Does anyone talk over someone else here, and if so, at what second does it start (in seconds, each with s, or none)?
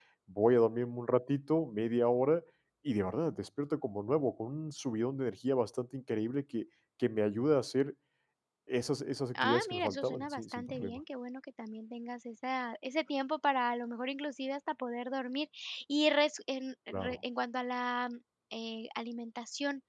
9.4 s